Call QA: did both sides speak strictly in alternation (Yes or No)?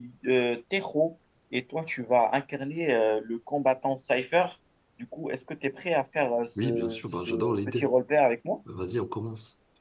No